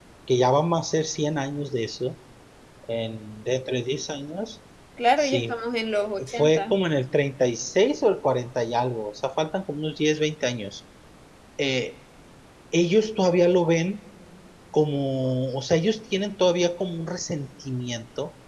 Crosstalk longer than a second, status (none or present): none